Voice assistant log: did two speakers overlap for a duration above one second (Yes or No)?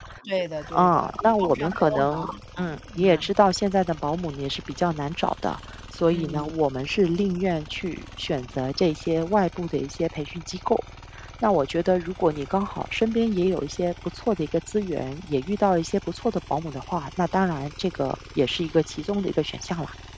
Yes